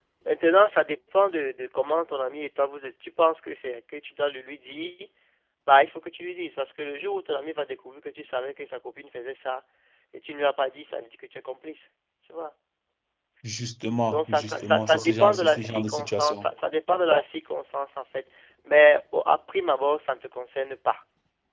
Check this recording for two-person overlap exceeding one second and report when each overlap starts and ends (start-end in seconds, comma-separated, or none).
14.1-16.5